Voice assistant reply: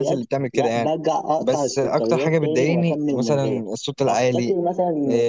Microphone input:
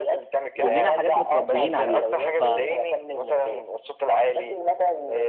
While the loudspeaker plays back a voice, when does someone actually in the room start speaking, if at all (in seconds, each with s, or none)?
0.6 s